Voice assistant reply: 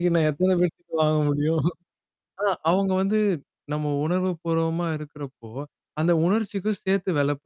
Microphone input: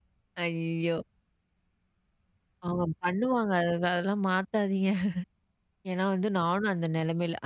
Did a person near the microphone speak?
Yes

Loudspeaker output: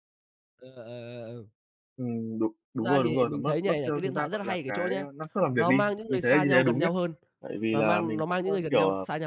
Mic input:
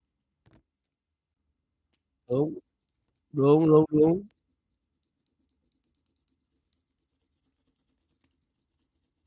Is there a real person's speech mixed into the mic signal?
Yes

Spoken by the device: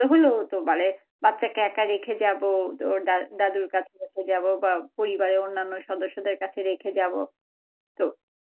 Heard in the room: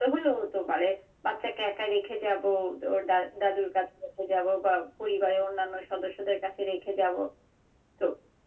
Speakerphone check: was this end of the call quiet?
Yes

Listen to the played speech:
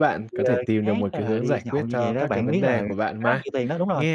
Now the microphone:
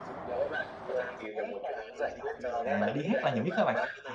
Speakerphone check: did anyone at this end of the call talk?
Yes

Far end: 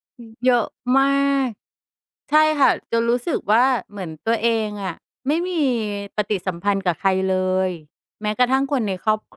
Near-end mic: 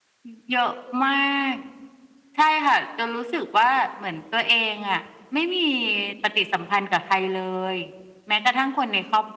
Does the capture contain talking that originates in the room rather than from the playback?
No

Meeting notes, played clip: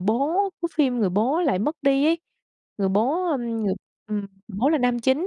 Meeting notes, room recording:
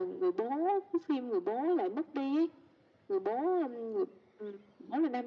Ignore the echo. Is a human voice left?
No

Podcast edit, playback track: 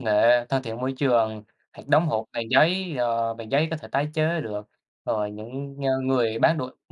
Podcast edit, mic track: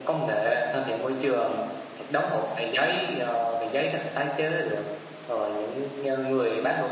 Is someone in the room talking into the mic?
No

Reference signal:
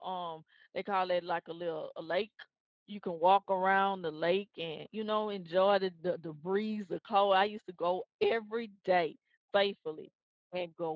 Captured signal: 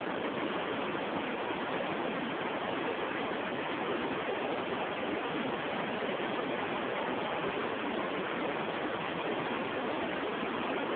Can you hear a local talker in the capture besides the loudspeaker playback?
No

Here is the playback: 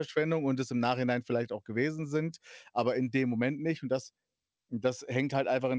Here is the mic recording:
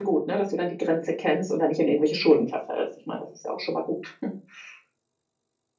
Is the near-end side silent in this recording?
No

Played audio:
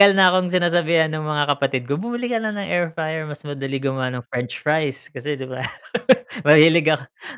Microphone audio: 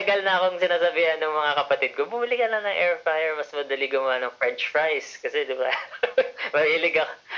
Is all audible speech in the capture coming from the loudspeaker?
Yes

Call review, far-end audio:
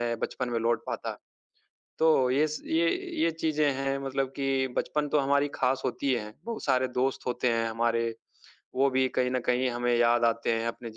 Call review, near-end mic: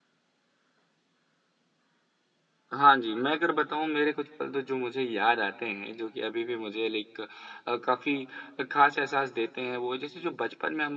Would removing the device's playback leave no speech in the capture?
No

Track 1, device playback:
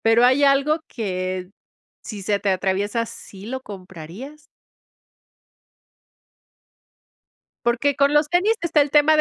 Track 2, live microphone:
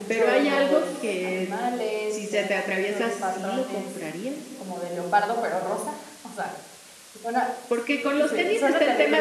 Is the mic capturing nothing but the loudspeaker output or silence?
No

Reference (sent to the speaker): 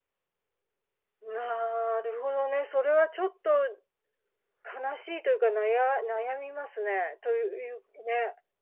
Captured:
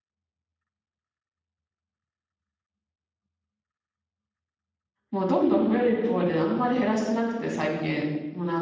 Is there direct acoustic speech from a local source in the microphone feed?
Yes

